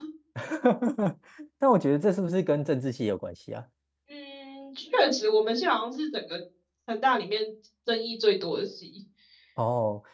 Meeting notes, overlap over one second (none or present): none